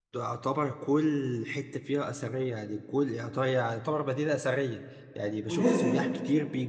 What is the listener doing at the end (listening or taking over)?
listening